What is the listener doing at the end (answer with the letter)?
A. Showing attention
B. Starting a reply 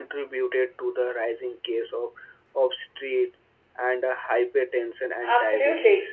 B